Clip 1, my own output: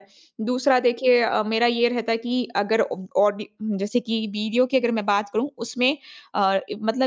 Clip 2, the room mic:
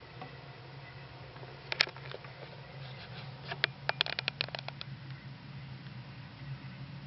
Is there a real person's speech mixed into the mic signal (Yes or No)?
No